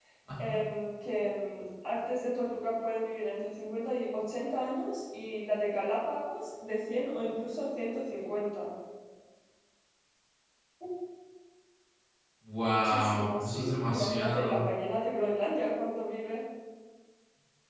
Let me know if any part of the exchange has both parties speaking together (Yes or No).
Yes